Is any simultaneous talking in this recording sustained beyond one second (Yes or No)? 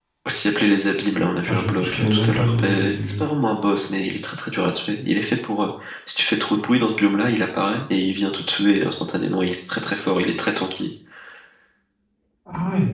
Yes